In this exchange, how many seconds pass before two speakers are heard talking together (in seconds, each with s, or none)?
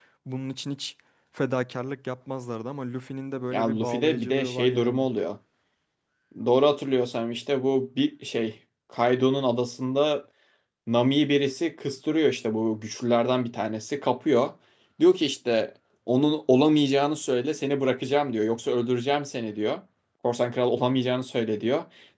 3.5 s